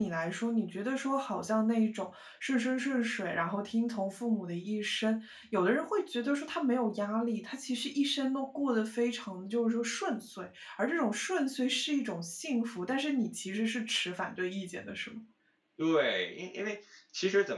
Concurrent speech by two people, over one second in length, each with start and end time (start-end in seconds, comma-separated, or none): none